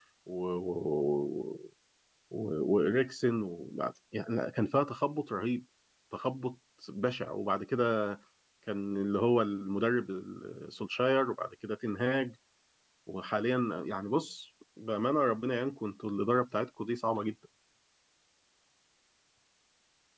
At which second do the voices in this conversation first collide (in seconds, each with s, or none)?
none